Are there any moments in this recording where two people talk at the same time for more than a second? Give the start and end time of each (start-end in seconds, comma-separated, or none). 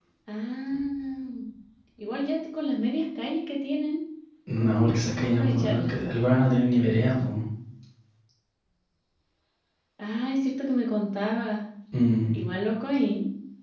4.6-6.0